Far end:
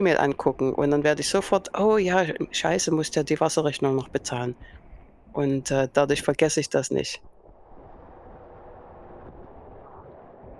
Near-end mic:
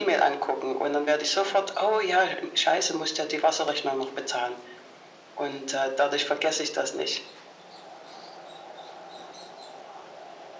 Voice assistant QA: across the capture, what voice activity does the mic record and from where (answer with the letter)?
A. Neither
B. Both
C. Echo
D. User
C